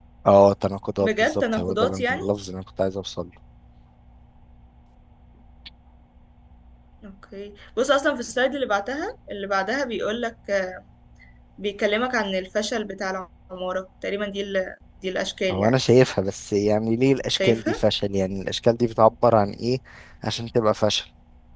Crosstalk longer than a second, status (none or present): present